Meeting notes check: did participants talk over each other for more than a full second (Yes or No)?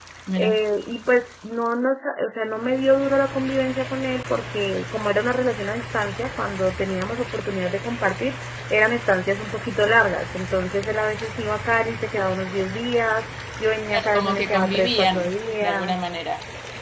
Yes